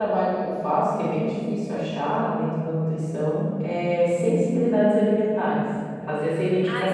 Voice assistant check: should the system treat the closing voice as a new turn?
Yes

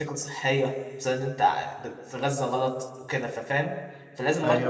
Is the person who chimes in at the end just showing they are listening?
Yes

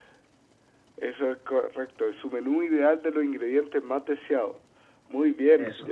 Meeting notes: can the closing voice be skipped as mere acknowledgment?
Yes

